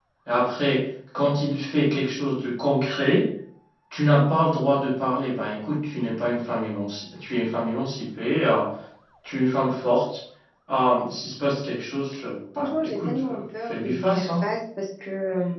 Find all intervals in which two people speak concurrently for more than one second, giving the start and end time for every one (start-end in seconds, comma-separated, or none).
12.6-14.4